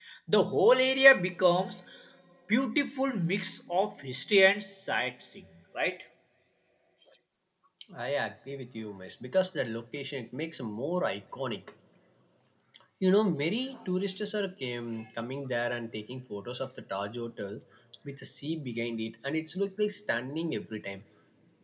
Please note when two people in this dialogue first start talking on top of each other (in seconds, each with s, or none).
none